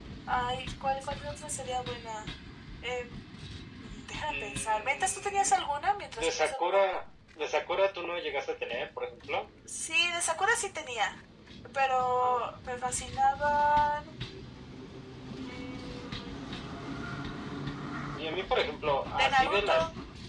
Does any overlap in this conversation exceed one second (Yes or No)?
Yes